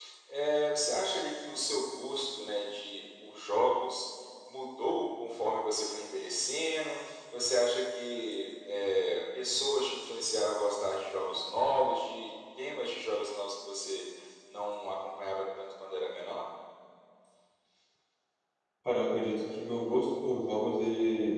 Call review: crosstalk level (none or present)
none